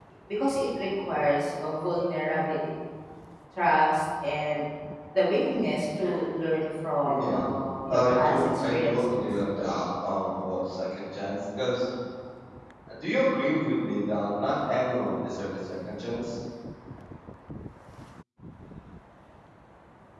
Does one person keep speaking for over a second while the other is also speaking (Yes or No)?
Yes